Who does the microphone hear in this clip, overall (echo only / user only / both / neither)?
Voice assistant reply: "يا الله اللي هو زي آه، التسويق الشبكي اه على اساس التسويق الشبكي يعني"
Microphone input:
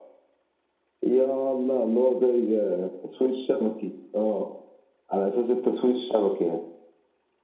echo only